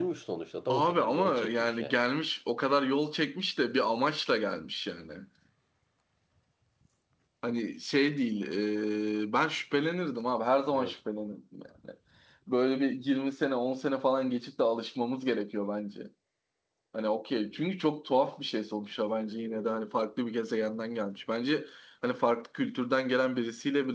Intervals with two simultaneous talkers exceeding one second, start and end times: 0.7-2.0

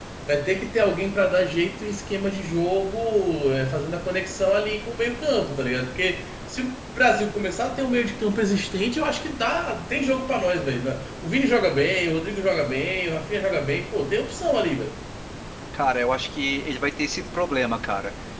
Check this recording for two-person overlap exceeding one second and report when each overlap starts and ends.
none

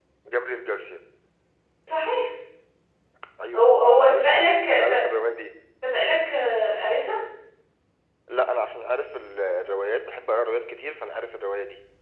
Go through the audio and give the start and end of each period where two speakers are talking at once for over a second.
3.5-4.9

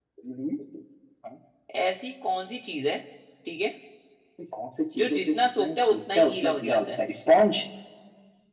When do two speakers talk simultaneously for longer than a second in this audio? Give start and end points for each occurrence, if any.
5.0-7.0

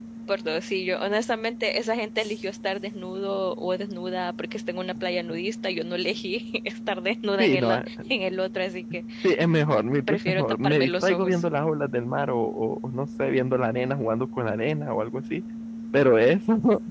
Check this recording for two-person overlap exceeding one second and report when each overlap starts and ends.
10.1-11.4

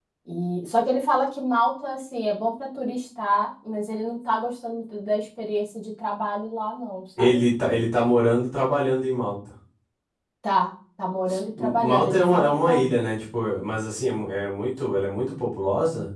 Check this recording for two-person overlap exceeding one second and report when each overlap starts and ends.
11.6-12.8

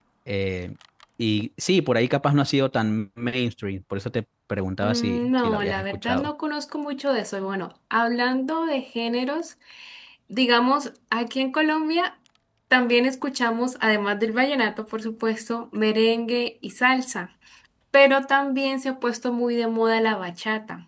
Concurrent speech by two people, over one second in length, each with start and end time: 4.8-6.3

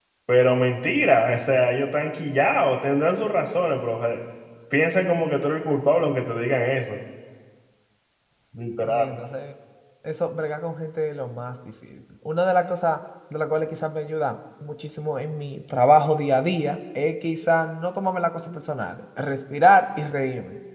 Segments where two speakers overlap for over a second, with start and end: none

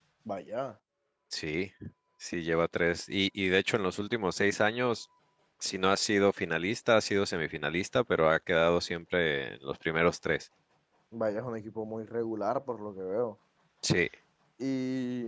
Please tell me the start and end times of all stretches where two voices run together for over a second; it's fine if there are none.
none

